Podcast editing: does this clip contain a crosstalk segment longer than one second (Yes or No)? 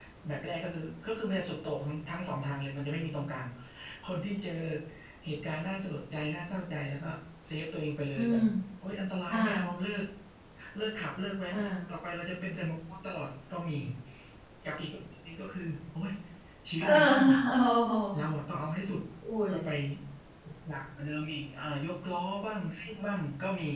No